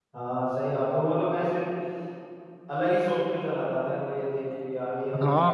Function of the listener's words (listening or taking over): taking over